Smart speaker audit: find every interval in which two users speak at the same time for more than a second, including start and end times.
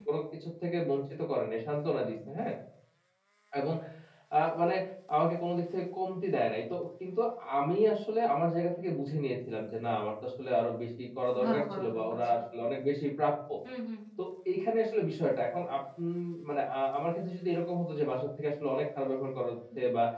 11.4-12.7

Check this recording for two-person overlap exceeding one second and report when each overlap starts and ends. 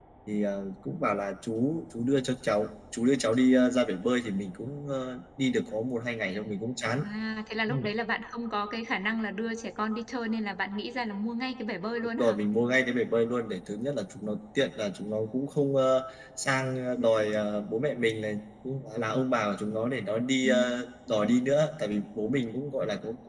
none

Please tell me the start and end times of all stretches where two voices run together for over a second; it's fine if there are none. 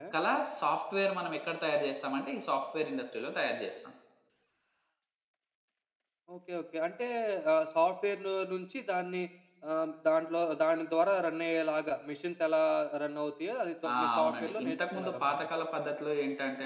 13.9-15.4

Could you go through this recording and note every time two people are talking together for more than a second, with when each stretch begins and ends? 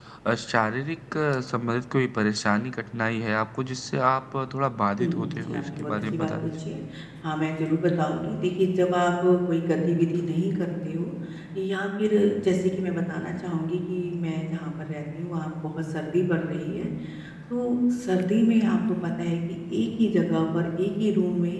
5.0-6.5

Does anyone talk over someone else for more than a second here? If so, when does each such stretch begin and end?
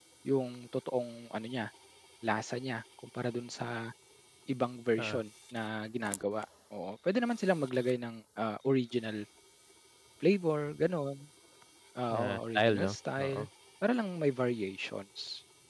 12.1-13.4

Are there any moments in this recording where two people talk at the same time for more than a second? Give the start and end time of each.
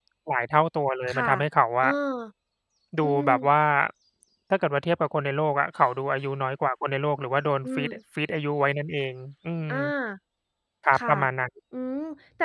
none

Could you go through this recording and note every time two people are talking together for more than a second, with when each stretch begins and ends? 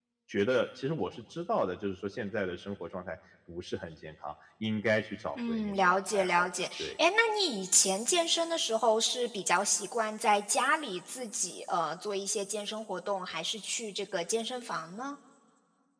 5.5-6.9

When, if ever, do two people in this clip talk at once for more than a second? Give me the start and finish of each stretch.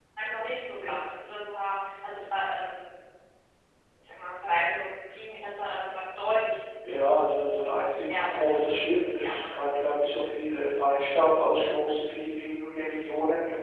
8.1-9.6

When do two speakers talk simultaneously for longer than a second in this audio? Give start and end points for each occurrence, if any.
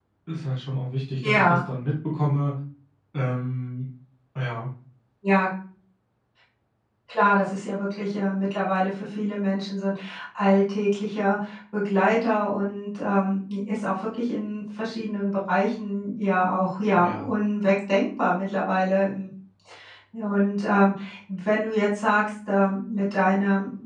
none

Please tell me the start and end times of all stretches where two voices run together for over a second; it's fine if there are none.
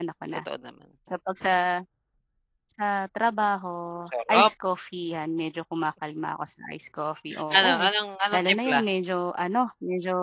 none

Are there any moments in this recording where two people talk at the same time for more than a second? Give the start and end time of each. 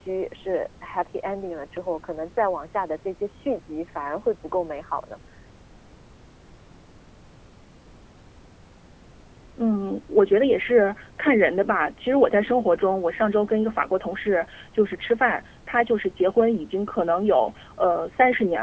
none

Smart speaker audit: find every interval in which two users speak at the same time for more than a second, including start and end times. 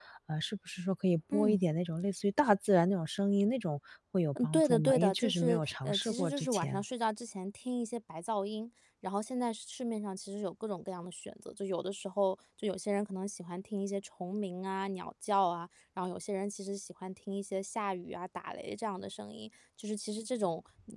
4.4-6.8

